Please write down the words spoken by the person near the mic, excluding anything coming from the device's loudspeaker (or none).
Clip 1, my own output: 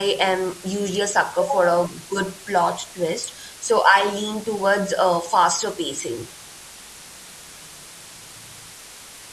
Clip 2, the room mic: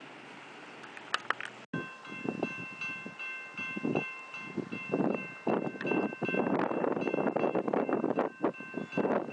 none